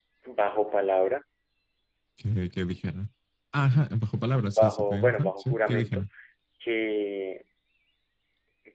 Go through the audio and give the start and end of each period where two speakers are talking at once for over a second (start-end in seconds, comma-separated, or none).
4.6-6.0